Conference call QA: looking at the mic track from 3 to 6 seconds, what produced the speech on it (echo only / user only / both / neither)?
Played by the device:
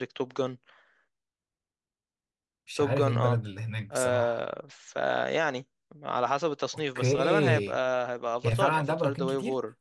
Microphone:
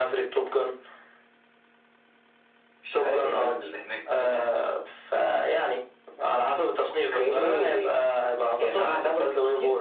echo only